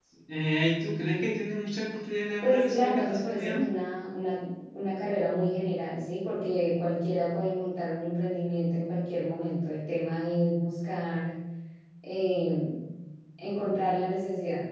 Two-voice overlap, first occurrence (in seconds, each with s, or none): 2.4 s